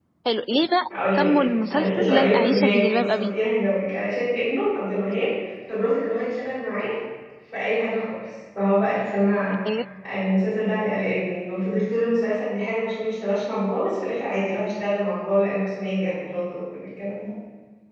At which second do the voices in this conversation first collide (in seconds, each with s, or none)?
0.9 s